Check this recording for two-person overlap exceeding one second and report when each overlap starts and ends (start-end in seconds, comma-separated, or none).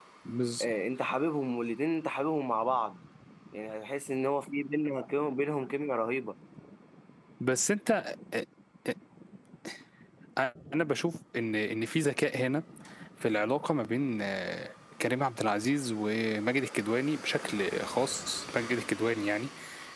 none